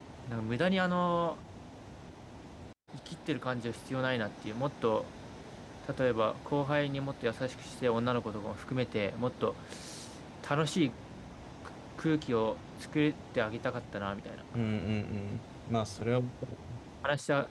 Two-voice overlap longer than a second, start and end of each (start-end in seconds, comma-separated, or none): none